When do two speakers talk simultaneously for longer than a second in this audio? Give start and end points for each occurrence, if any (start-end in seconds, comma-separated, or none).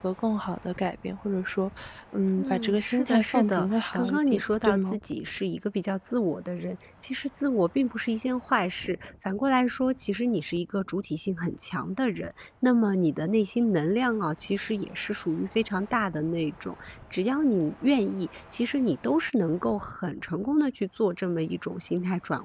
2.4-5.0